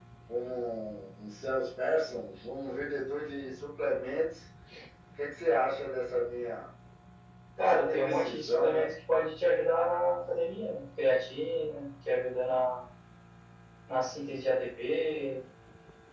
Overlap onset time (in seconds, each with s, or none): 7.6 s